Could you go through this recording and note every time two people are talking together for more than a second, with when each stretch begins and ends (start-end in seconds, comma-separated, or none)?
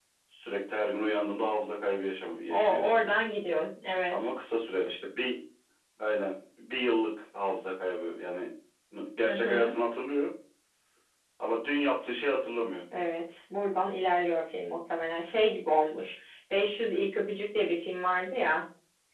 none